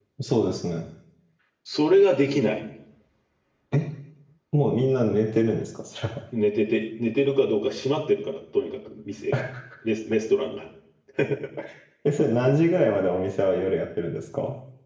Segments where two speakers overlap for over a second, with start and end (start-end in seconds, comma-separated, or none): none